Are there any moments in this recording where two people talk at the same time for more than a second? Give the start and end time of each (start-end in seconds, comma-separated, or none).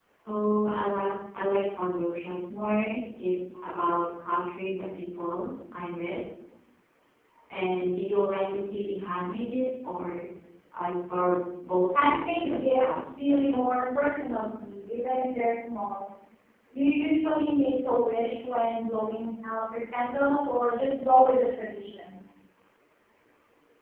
11.9-13.6